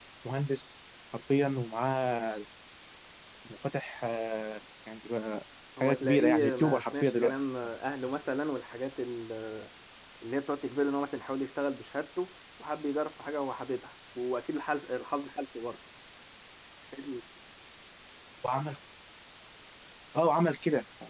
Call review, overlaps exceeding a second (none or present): present